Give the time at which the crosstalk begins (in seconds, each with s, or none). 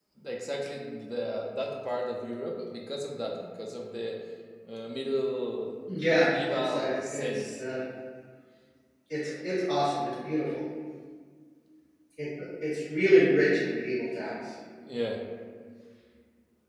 6.1 s